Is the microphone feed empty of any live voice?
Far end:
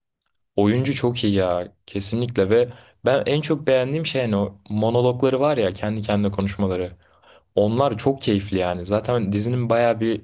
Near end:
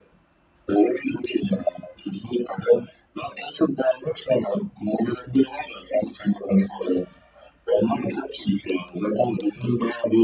Yes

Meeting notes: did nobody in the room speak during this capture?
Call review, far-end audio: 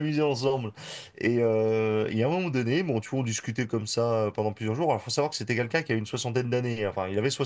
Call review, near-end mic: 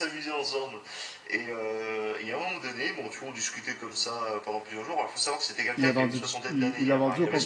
No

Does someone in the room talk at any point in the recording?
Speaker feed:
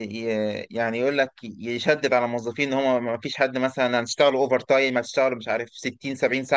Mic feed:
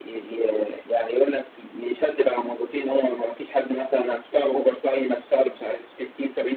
No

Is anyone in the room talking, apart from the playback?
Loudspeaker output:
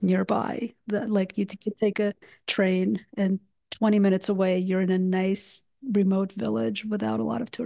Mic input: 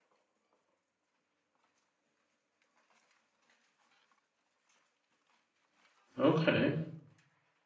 Yes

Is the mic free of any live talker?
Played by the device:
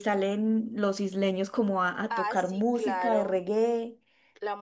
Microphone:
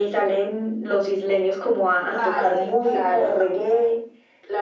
No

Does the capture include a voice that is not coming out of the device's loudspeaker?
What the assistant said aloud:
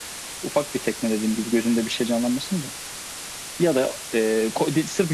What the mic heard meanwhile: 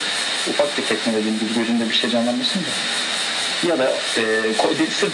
No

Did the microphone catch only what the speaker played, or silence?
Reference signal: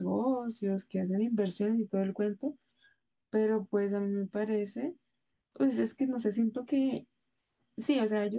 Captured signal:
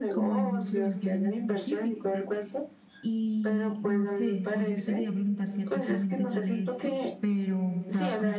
No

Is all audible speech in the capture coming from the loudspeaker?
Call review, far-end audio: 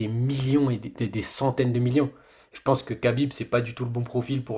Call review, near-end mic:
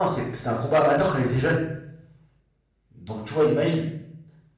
No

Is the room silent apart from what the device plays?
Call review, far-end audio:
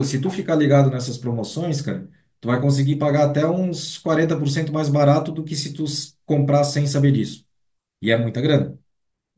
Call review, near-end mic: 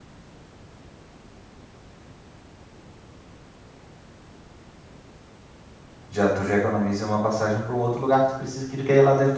No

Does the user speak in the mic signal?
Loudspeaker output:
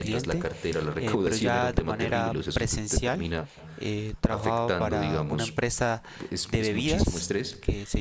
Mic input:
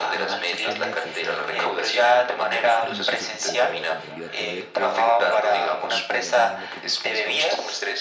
Yes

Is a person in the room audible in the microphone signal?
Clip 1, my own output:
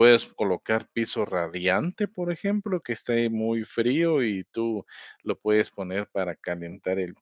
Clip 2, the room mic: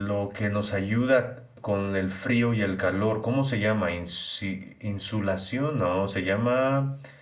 Yes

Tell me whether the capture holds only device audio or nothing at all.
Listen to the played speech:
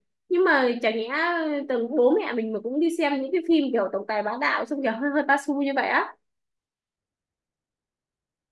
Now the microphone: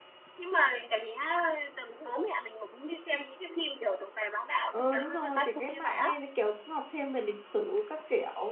No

